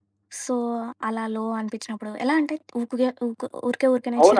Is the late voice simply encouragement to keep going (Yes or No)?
No